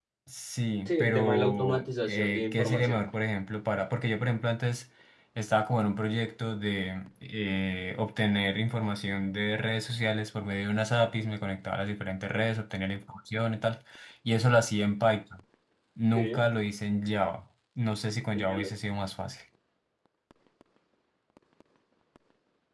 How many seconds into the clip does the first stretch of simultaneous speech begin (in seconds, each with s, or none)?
0.8 s